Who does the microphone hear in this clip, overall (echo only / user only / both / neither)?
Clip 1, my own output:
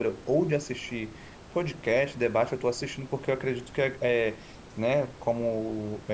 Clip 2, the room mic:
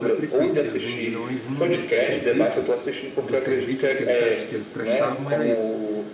both